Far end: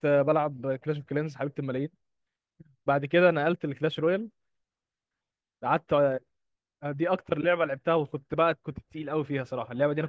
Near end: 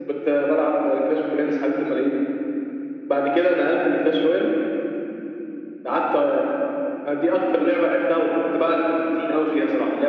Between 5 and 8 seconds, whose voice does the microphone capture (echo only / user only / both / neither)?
echo only